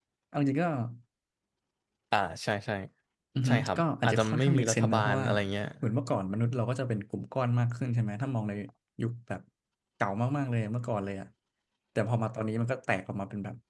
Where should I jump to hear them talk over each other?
3 s

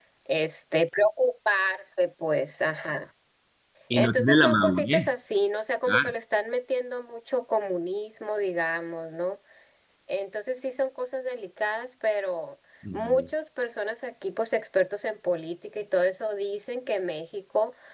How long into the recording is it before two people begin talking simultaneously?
4 s

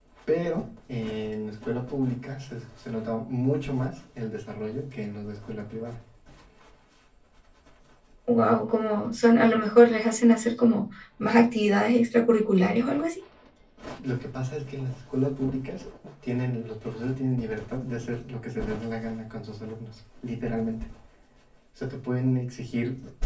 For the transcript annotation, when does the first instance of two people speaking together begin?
none

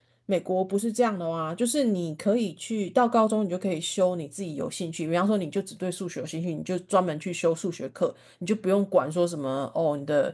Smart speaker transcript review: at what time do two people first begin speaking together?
none

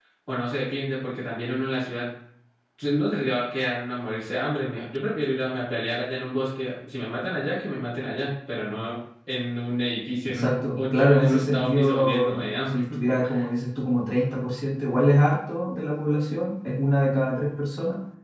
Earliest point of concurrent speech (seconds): 10 s

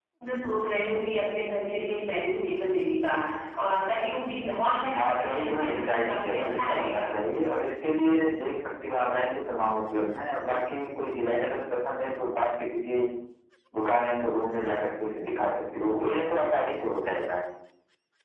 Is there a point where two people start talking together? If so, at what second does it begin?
5 s

